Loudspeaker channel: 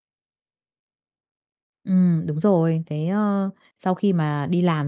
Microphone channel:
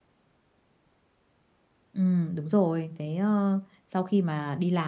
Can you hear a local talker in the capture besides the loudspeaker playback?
No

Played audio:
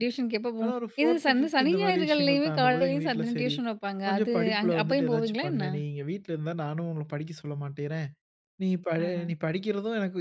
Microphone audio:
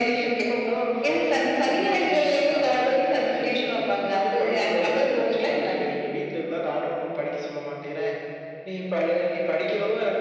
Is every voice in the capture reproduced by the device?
Yes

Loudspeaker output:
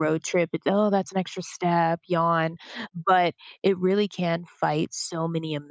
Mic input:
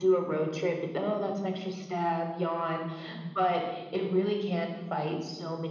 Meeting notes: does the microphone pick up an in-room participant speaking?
No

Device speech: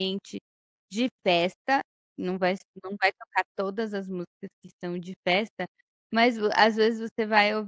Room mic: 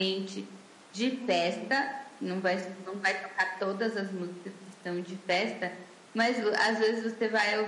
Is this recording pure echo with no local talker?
No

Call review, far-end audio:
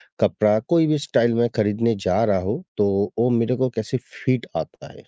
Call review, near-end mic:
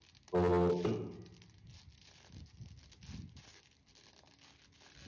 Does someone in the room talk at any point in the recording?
Yes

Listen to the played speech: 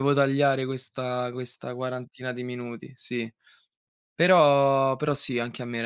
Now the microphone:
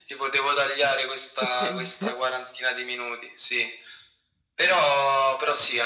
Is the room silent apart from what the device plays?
No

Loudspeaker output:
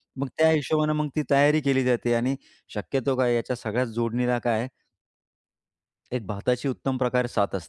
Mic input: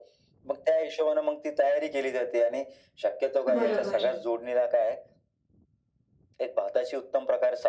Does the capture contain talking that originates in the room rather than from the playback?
Yes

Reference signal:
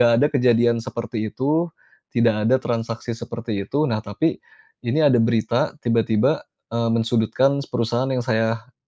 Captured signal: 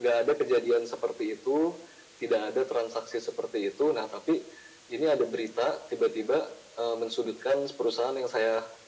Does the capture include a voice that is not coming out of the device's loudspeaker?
No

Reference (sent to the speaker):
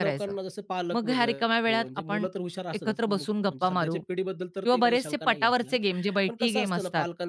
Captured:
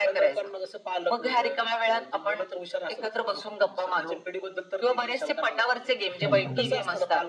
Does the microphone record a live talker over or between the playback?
Yes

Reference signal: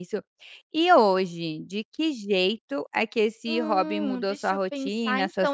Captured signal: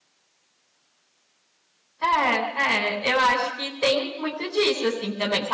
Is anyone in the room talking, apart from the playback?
Yes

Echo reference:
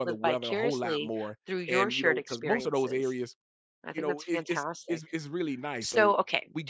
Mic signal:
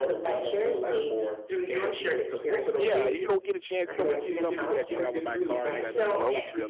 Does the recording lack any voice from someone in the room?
No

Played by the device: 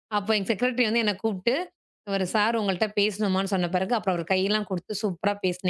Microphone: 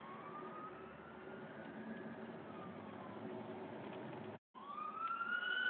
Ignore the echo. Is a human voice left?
No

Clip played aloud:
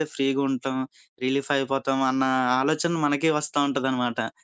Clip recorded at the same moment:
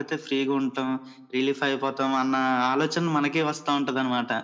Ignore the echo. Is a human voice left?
No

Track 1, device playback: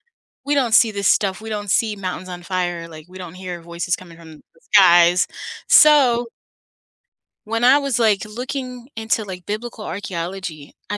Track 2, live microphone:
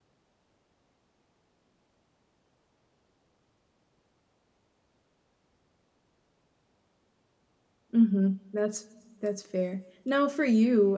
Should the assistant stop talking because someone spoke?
Yes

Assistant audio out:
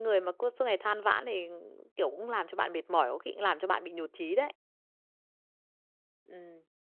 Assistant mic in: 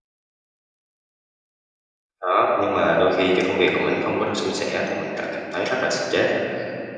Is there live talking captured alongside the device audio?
Yes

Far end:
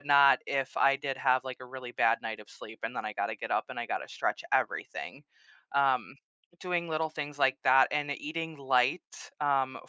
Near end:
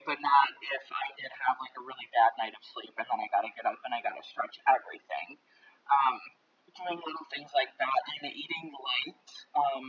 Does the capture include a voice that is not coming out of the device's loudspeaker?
No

